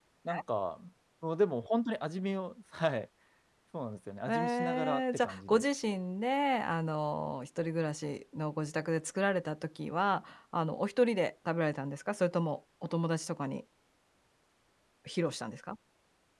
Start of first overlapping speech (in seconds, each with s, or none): 4.3 s